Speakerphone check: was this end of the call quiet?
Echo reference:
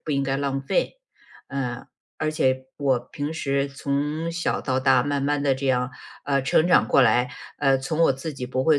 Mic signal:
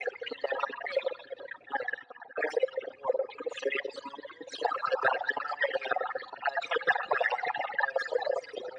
Yes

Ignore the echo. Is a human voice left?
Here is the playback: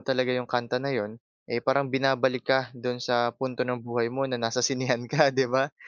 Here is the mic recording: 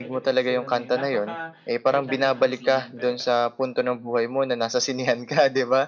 Yes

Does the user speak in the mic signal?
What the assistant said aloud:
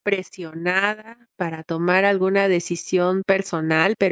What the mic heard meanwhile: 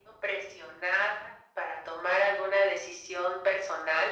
No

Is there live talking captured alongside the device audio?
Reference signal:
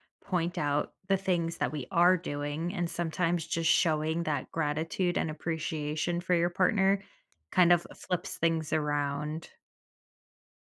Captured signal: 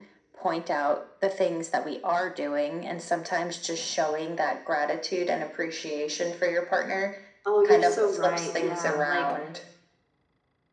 Yes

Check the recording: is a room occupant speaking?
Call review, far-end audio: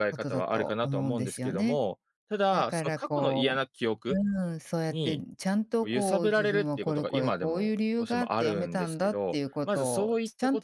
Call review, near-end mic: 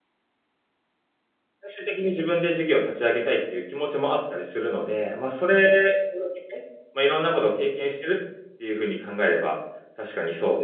Yes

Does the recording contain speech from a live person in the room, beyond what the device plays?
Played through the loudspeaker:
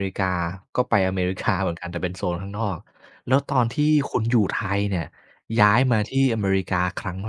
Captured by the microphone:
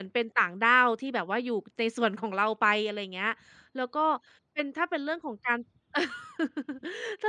Yes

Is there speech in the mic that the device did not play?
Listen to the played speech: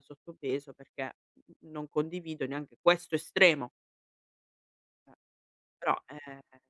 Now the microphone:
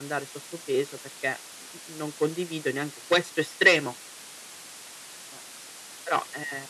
No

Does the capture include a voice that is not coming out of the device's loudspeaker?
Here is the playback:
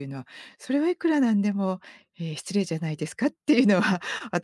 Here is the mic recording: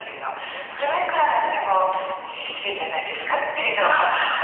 No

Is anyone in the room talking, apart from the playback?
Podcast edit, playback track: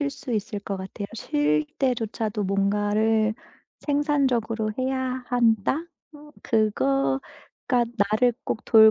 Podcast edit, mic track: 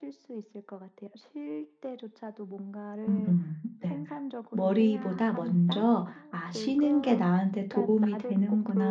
Yes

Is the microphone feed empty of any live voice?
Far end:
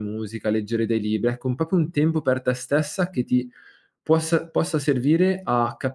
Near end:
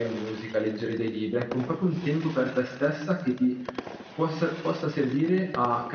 Yes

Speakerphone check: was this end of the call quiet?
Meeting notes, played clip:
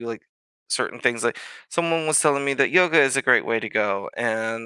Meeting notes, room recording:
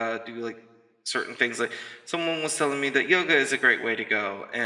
Yes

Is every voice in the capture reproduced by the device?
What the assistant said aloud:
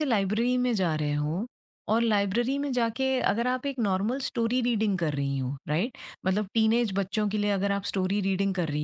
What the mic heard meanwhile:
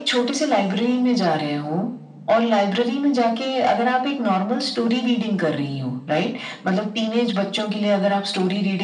Yes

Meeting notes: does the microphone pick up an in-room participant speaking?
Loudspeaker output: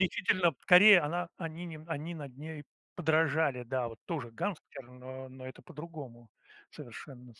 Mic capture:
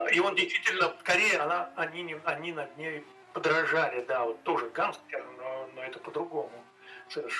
No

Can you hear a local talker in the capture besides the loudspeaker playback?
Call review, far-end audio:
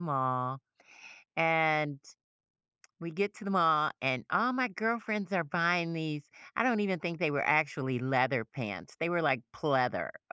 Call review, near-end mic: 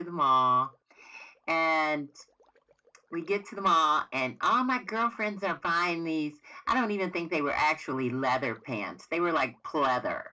No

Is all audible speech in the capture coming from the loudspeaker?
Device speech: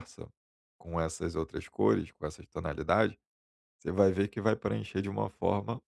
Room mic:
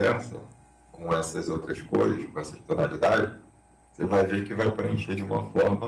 Yes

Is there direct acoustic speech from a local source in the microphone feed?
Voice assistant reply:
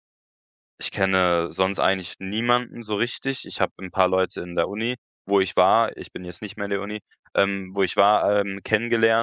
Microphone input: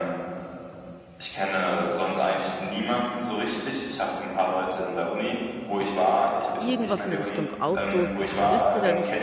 Yes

